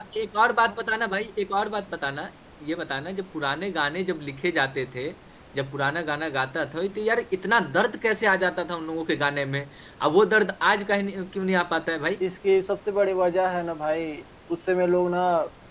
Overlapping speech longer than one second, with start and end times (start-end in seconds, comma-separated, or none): none